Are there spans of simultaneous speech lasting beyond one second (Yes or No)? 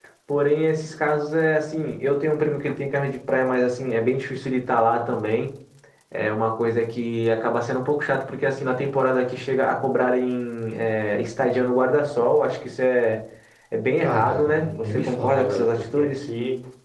Yes